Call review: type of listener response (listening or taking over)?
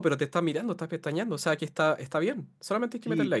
taking over